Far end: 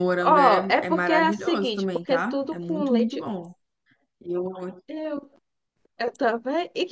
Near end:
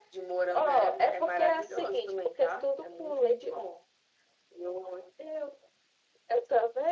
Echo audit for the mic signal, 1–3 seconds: echo only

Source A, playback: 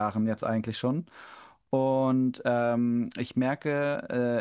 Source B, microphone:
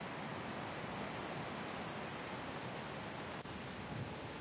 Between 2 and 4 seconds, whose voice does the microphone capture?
neither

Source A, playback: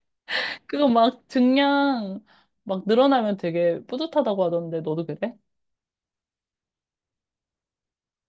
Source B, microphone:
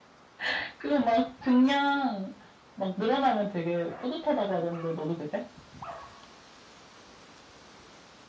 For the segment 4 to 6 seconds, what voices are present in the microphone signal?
echo only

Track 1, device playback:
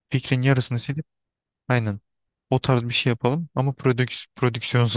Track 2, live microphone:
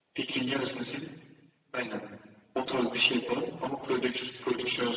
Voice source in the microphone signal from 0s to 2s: echo only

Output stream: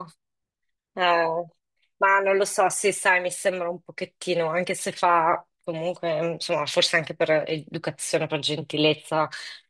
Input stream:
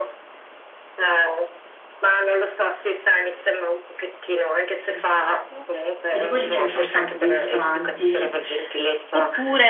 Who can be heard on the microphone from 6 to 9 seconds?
both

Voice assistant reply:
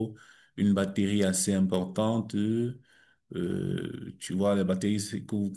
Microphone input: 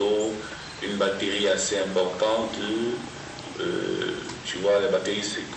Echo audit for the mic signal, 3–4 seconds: echo only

